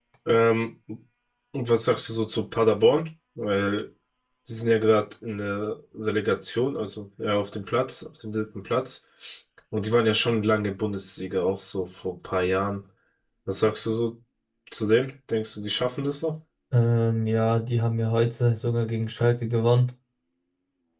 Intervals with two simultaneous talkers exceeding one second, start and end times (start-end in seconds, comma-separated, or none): none